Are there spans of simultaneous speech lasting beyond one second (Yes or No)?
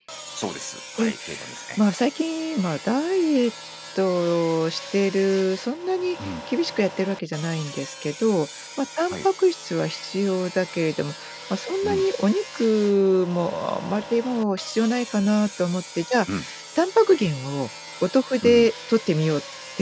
No